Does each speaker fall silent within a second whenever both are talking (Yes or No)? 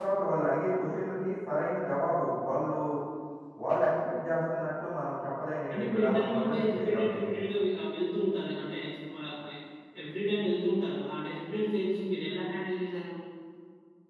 No